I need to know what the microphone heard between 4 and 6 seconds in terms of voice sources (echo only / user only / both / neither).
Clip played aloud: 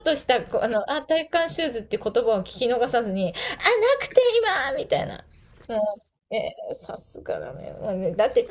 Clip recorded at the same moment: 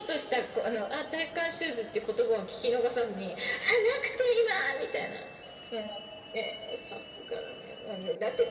echo only